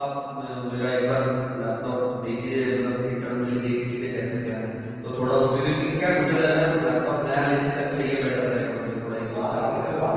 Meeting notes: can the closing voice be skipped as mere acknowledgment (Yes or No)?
No